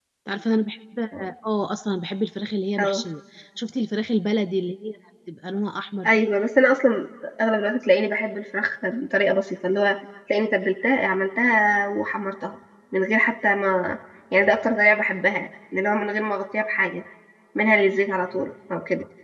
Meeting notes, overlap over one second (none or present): none